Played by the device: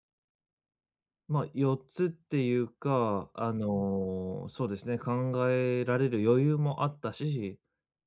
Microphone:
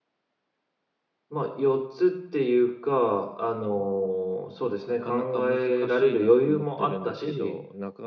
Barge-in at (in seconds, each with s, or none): 4.8 s